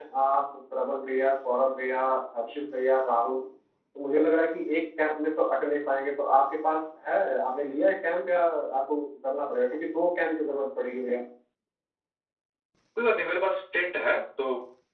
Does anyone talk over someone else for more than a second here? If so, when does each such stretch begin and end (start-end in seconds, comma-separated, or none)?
none